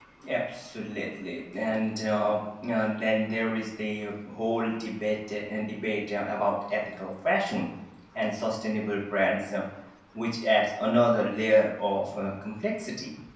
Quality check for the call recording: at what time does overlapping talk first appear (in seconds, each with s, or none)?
none